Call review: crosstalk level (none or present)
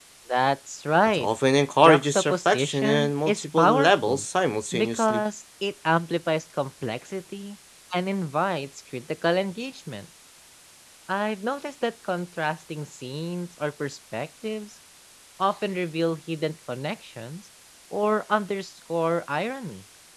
present